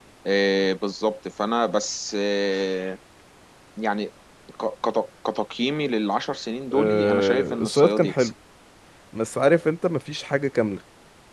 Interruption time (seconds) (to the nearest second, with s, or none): 7 s